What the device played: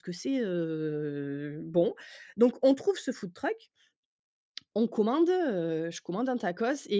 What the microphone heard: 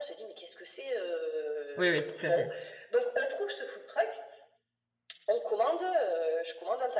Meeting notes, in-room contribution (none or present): present